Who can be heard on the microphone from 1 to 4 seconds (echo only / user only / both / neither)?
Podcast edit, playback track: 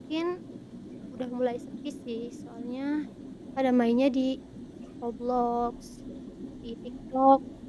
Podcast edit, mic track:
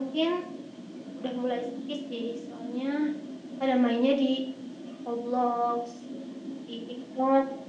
echo only